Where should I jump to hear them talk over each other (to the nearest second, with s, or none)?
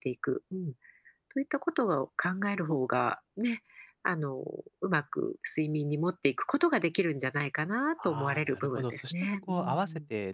8 s